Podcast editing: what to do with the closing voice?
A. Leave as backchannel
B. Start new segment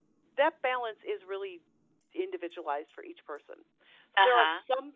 A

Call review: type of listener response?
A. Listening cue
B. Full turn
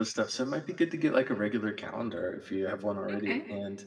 A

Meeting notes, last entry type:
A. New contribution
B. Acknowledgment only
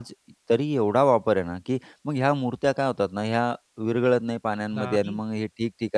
B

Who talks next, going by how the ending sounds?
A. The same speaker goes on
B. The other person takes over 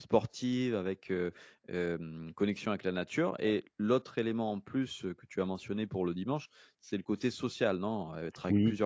B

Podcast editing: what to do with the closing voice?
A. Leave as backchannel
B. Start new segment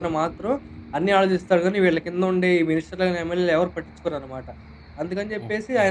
A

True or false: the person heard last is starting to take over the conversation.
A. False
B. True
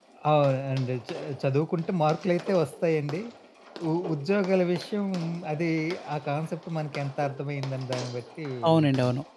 B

